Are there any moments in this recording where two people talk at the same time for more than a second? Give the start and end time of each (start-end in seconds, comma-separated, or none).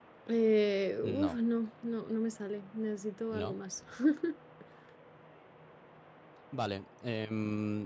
none